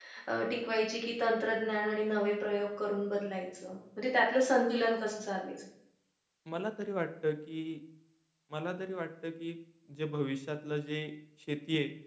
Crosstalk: none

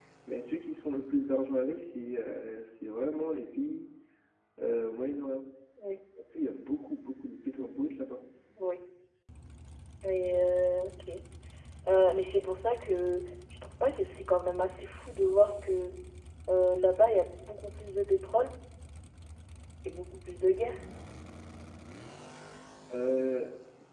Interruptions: none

